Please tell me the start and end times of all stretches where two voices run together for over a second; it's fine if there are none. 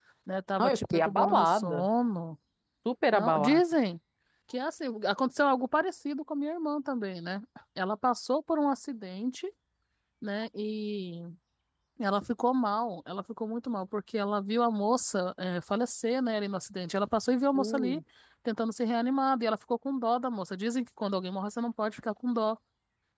0.6-1.9

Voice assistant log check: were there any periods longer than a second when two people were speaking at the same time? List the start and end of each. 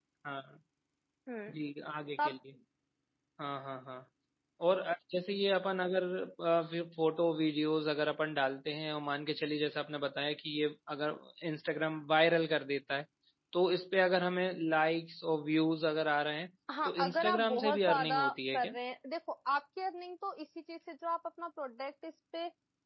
16.9-18.7

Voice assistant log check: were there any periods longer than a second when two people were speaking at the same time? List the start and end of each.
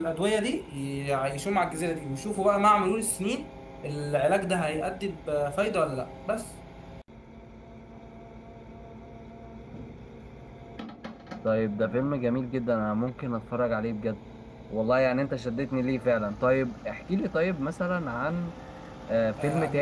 none

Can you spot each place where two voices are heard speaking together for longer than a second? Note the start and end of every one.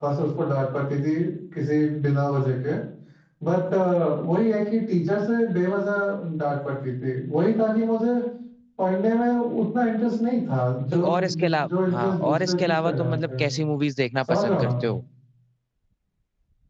11.1-13.5

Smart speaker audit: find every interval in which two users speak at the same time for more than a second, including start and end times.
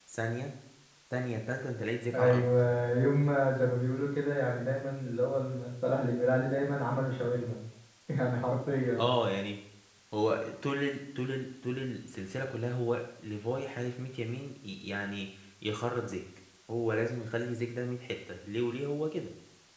none

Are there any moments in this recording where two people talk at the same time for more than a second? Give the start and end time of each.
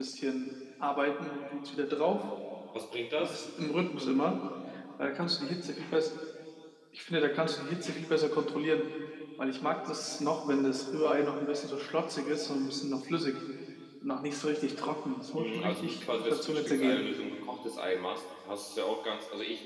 15.4-17.0

